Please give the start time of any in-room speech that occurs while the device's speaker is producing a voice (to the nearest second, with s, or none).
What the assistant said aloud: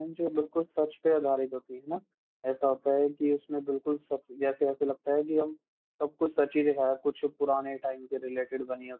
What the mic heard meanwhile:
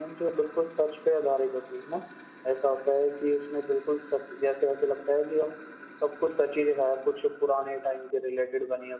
none